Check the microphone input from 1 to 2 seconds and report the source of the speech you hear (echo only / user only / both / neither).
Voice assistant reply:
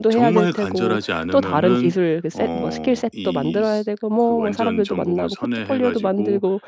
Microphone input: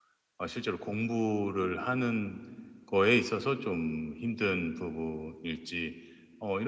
user only